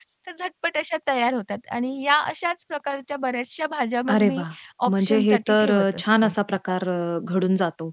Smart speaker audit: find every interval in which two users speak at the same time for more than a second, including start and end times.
4.9-6.3

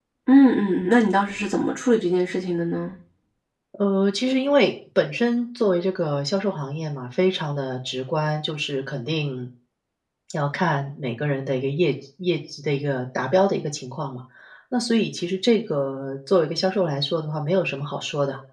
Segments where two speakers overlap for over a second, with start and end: none

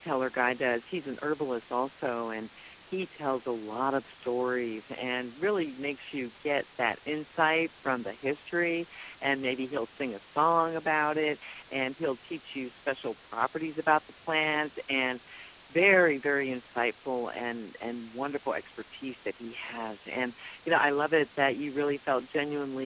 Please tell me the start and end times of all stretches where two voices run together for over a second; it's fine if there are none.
none

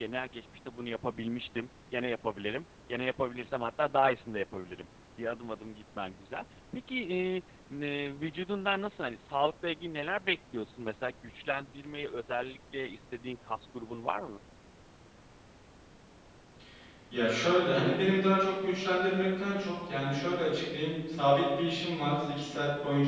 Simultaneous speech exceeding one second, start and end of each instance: none

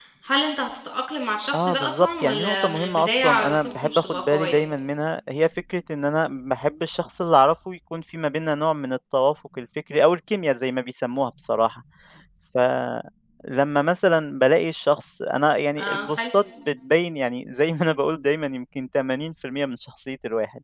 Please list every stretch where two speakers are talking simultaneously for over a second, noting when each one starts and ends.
1.5-4.6

